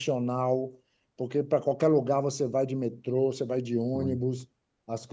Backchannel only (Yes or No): Yes